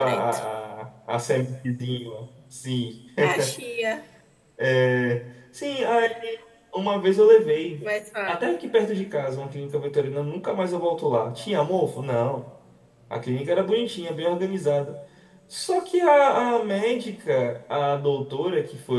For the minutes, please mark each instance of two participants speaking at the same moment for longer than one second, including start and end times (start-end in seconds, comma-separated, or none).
none